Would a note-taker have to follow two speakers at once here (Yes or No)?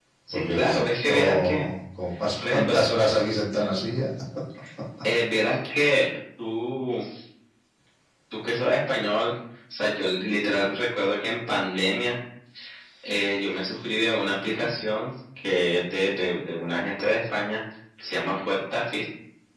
Yes